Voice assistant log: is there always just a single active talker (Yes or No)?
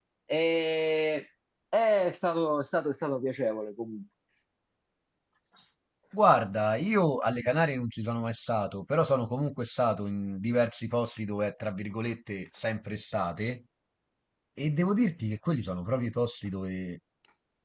Yes